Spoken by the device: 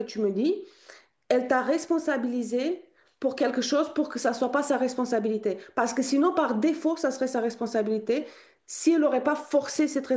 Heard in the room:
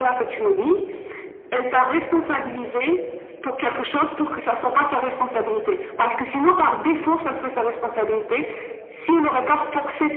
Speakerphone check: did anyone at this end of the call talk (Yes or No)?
No